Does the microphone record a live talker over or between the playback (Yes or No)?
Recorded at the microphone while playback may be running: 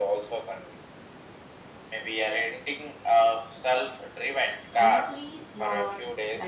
Yes